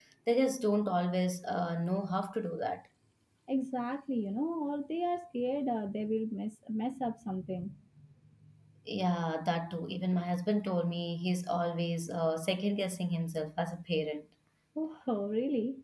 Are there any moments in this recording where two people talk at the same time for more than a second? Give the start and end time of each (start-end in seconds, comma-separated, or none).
none